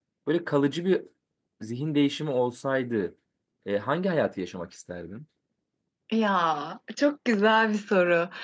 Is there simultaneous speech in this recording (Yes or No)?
No